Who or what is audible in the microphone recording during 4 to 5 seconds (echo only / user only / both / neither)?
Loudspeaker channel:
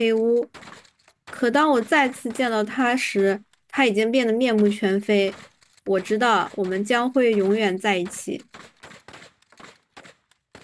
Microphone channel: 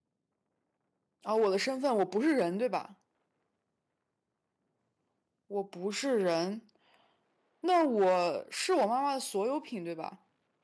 neither